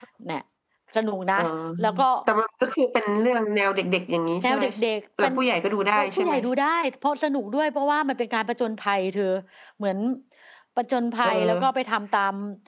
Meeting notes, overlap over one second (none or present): none